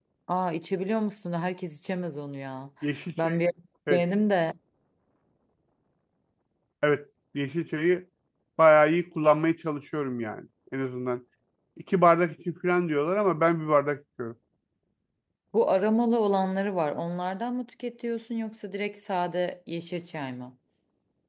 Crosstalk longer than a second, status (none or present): none